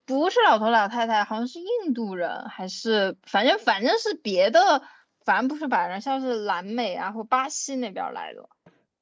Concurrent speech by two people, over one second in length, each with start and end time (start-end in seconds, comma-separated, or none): none